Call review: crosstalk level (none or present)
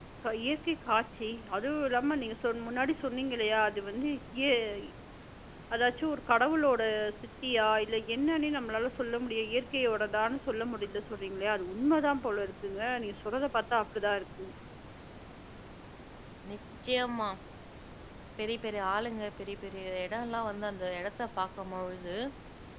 none